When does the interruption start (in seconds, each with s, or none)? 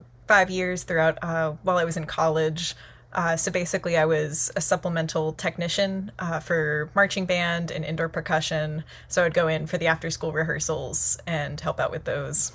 none